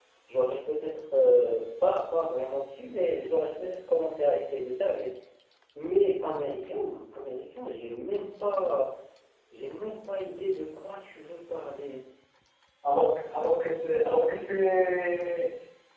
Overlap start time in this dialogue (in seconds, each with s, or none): none